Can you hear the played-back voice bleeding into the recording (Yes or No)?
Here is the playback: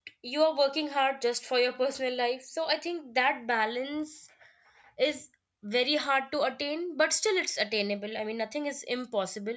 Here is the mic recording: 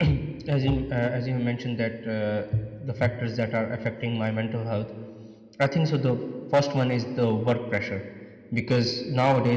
No